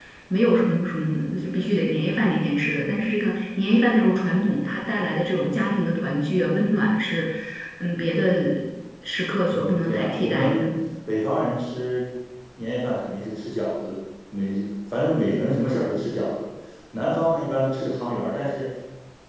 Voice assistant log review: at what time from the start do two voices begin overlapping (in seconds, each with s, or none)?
9.5 s